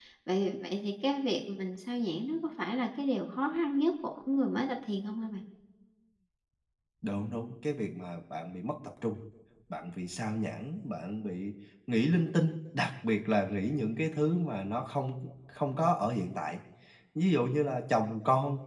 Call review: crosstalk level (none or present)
none